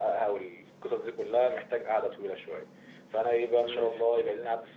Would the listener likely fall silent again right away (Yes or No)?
Yes